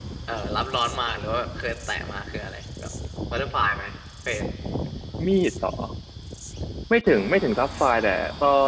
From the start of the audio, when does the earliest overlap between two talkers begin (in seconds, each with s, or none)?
none